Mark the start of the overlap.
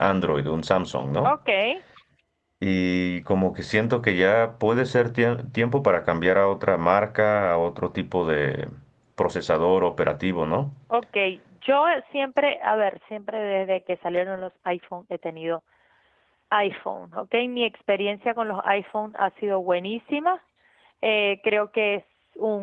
none

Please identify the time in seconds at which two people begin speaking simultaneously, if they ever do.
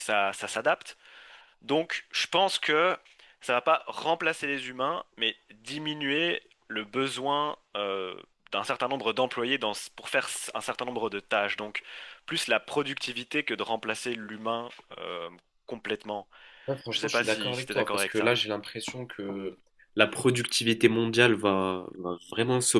17 s

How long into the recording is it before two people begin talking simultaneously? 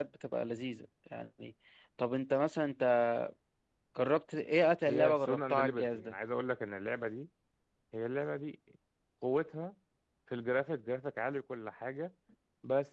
5 s

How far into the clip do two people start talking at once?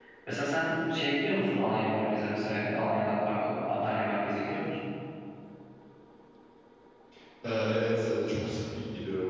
none

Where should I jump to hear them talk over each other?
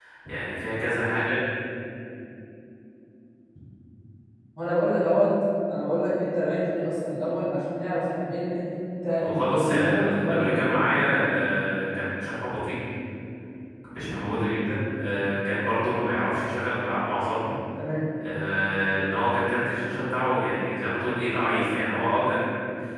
9 s

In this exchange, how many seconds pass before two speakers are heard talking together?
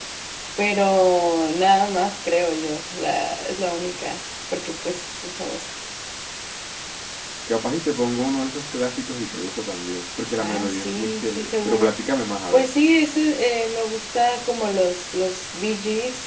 10 s

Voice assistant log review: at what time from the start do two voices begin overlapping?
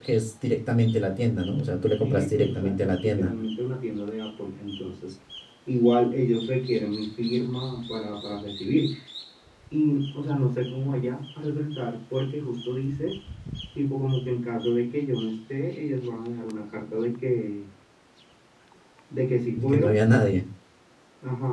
2 s

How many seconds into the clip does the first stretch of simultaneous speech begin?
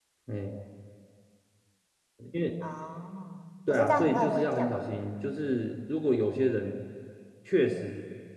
4 s

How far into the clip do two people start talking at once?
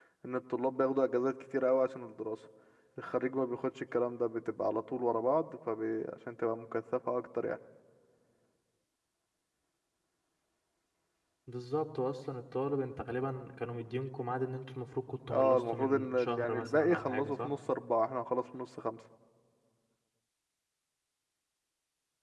15 s

